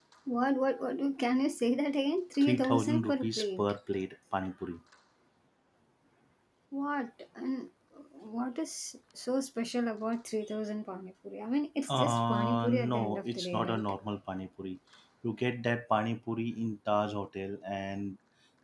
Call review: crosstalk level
present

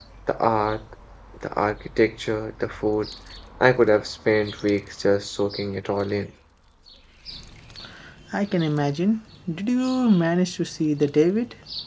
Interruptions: none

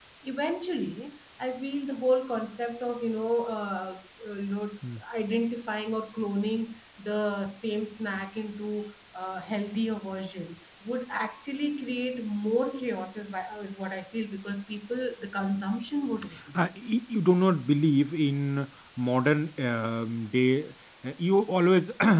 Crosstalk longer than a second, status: none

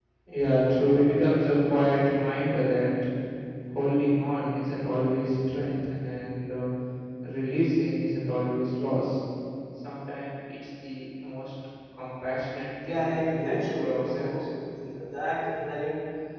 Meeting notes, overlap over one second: present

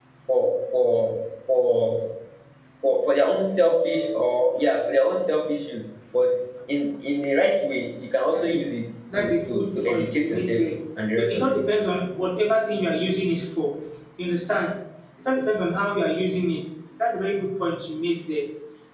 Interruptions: present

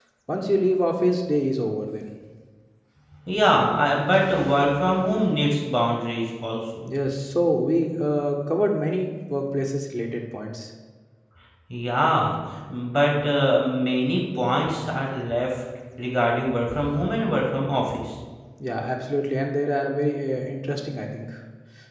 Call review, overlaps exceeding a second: none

